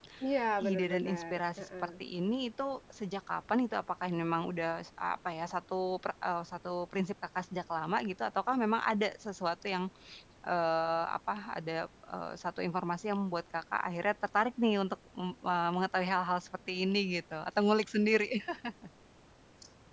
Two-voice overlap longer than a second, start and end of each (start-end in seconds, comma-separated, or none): 0.6-1.9